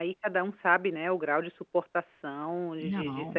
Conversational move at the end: listening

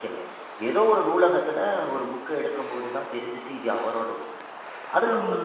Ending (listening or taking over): listening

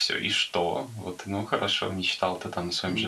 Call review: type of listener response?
listening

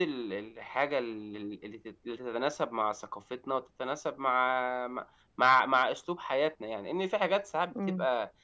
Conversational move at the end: listening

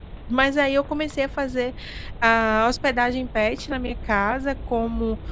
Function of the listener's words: listening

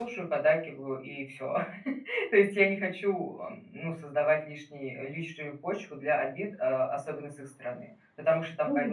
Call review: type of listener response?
taking over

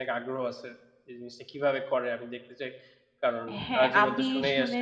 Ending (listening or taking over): taking over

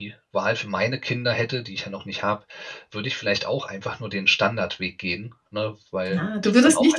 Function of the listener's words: taking over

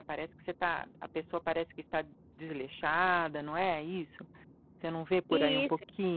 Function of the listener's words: taking over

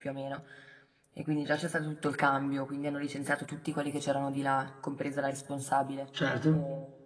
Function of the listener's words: listening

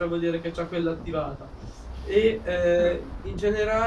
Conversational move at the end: listening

